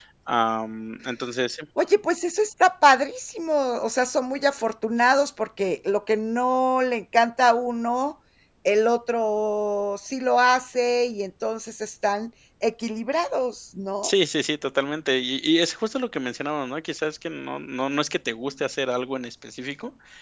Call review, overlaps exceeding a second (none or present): none